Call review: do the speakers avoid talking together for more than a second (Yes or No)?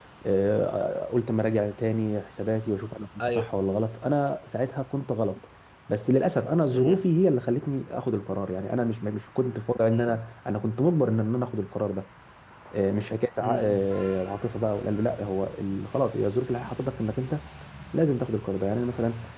Yes